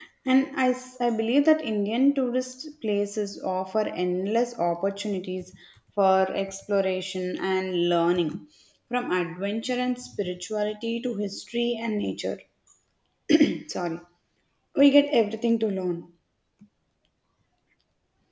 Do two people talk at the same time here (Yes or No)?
No